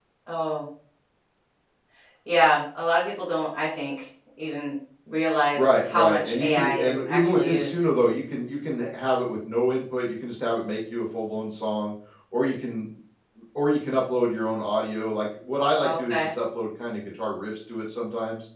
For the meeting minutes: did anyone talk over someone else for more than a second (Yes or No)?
Yes